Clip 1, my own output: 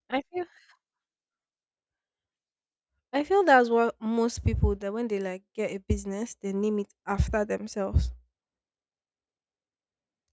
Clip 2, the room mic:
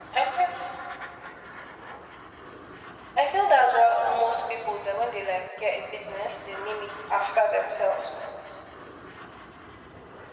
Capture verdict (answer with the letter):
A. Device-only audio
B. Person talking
A